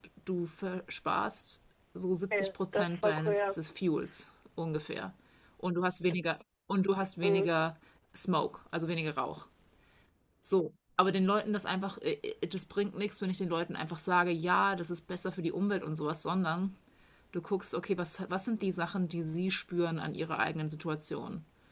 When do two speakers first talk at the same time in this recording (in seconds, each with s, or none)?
2.3 s